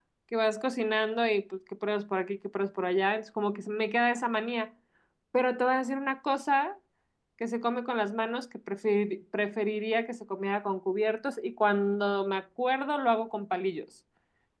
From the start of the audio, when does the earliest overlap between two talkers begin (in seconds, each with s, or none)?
none